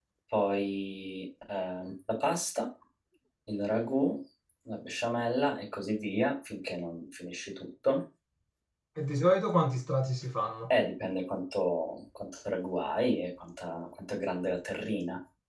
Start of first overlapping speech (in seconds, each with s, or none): none